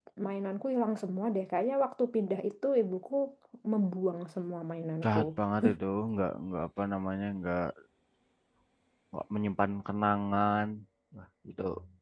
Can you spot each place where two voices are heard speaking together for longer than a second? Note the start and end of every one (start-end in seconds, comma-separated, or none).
none